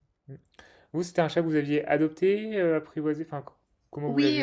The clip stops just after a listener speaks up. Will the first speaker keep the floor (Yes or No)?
No